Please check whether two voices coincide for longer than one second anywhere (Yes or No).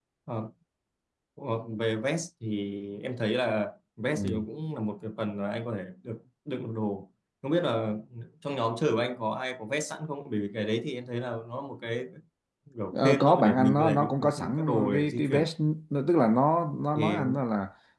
Yes